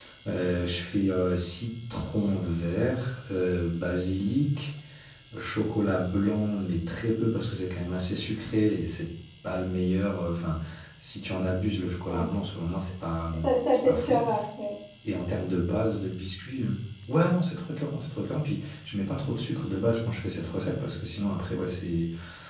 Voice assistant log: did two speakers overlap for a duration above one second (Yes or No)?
No